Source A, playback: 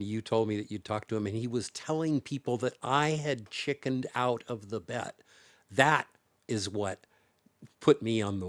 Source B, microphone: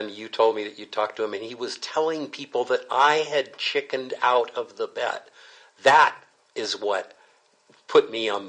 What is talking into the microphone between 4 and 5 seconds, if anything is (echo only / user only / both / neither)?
echo only